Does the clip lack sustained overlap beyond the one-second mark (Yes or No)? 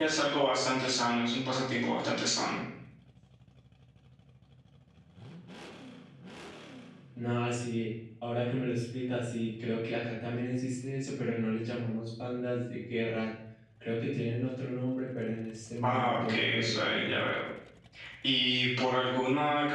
No